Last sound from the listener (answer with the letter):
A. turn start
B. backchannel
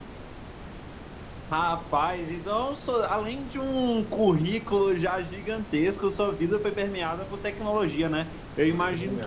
B